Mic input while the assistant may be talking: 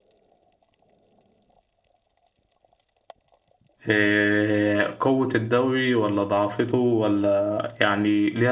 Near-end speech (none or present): present